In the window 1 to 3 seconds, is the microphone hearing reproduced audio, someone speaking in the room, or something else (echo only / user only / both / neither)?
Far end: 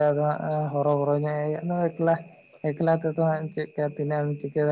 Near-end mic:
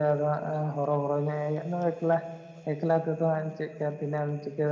echo only